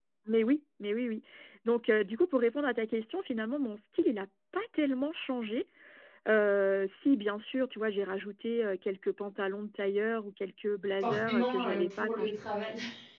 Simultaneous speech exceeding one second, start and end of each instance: 11.0-12.3

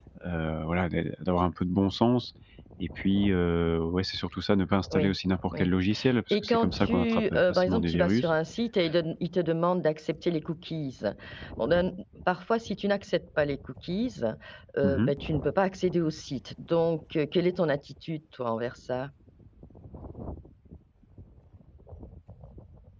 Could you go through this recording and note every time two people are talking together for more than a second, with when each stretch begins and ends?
6.4-8.3

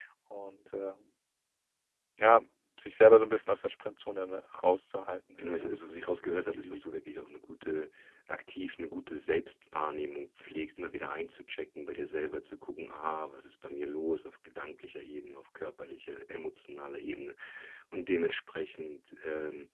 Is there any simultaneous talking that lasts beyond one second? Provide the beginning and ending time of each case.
5.4-6.8

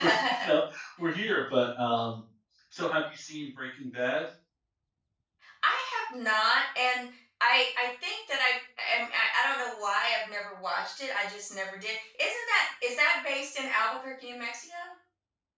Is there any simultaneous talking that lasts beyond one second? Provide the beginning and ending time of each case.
none

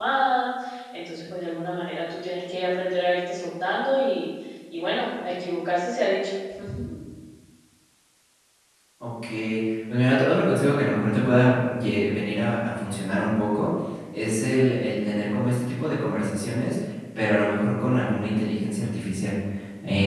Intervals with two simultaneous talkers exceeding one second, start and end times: none

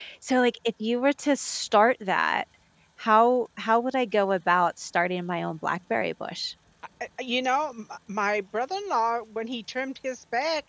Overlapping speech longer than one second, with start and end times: none

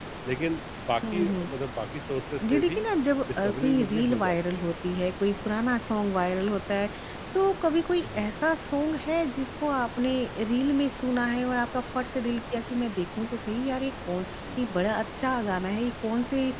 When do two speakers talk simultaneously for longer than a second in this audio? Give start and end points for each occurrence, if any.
3.4-4.7

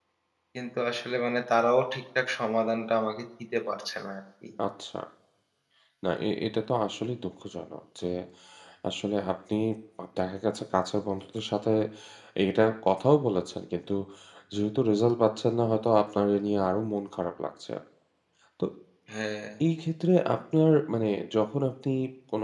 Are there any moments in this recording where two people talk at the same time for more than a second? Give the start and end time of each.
none

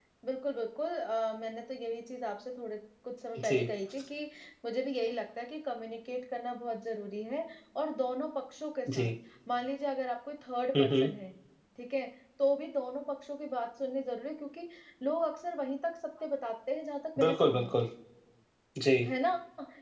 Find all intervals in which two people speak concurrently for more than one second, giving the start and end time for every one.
none

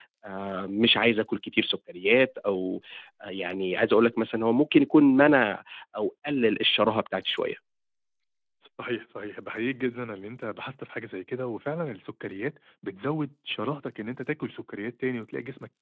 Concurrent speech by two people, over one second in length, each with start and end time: none

